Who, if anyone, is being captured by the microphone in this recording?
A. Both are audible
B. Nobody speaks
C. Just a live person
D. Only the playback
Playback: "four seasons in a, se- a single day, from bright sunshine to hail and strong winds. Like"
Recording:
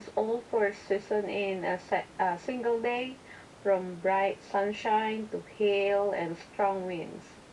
D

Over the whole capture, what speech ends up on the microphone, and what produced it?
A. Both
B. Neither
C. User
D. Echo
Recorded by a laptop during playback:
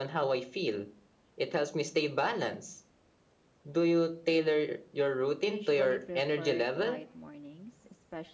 A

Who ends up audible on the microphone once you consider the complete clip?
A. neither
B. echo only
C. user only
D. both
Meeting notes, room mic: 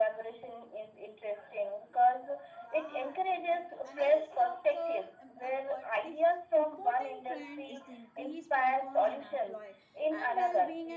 D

